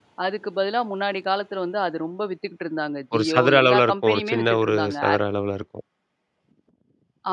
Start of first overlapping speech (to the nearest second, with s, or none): 3 s